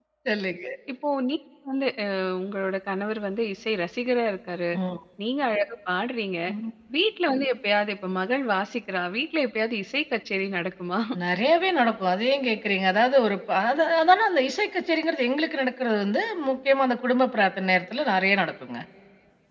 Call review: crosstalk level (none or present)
none